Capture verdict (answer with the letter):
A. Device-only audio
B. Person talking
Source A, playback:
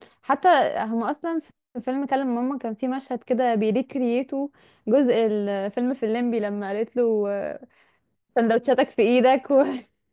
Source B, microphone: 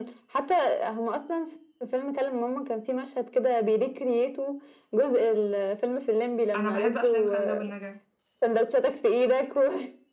B